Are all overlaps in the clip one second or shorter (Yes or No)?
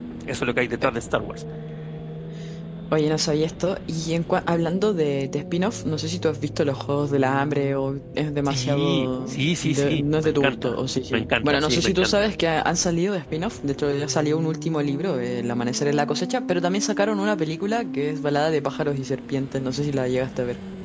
No